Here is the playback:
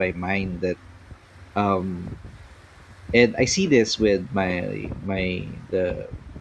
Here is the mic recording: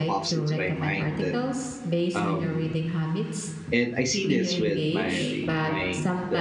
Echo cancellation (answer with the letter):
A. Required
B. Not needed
A